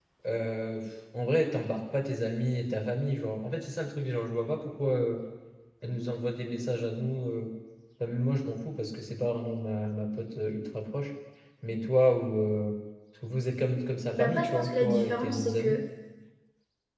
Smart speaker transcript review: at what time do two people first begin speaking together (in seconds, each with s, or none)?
14.1 s